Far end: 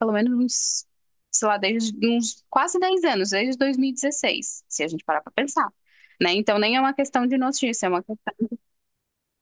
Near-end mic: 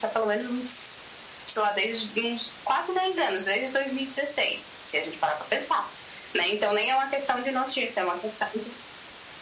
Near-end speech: none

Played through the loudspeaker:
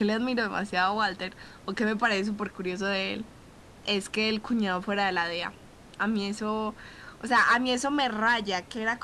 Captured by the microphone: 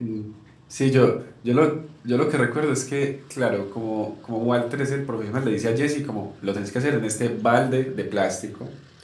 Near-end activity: present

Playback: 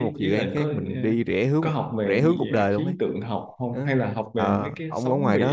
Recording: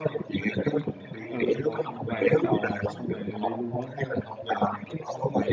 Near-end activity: present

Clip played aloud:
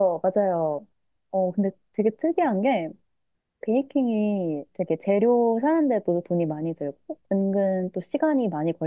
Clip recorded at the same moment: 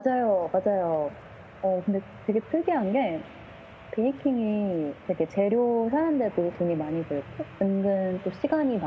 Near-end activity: none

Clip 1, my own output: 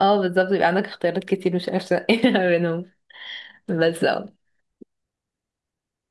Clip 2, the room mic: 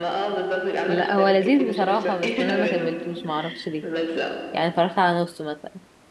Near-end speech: present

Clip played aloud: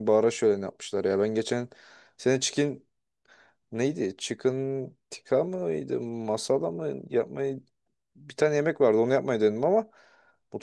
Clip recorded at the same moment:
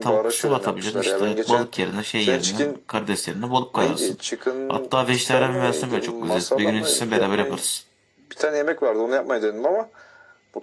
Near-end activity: present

